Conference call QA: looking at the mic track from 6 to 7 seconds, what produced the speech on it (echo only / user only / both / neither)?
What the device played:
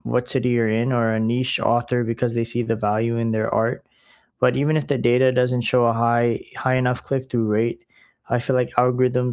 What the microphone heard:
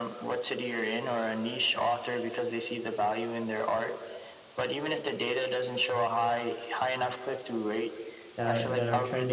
echo only